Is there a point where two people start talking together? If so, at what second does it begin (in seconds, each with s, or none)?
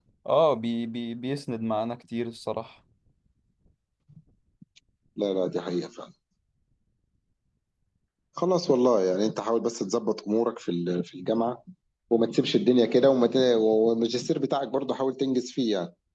none